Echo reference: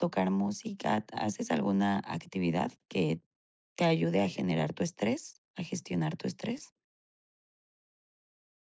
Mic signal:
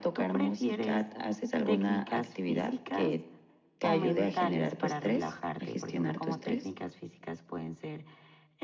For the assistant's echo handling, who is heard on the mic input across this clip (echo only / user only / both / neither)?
both